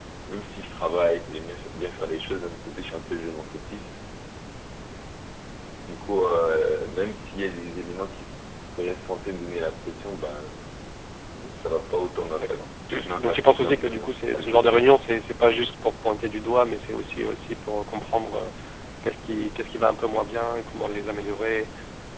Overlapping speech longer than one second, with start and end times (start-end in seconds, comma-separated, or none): 13.2-14.9